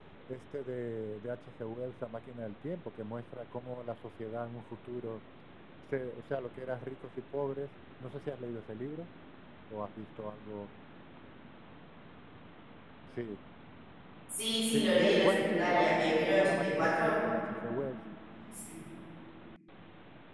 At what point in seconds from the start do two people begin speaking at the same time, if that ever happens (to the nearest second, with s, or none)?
15 s